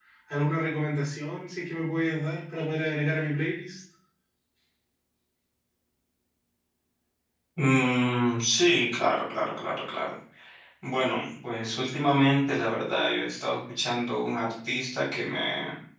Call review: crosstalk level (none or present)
none